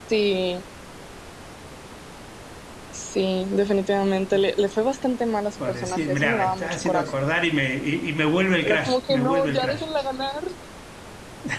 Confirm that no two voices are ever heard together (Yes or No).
No